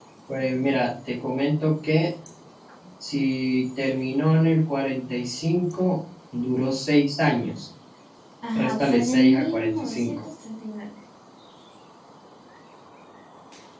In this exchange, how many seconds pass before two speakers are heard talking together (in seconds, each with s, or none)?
8.6 s